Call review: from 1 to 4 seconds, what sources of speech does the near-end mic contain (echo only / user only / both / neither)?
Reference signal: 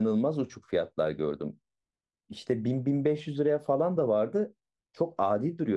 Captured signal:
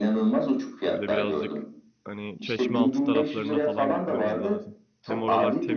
both